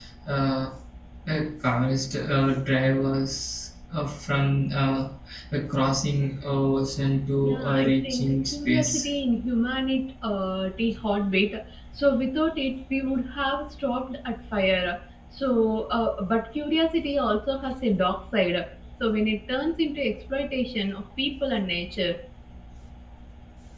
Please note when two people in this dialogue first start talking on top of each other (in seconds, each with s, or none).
7.4 s